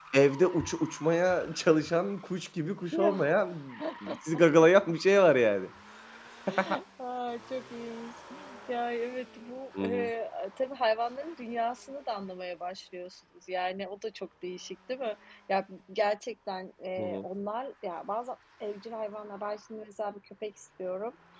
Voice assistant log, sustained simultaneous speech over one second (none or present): none